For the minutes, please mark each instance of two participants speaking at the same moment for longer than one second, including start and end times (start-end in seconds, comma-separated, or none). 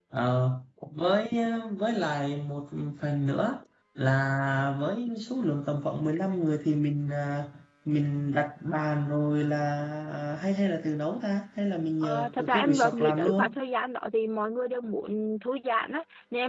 12.0-13.6